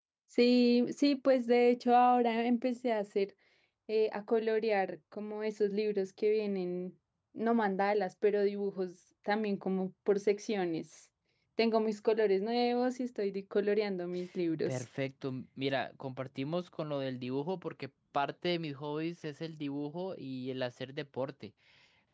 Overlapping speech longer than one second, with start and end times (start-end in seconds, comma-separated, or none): none